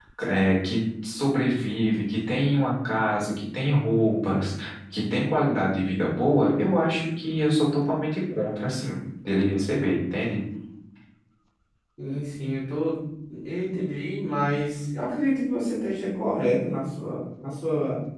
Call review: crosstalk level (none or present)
none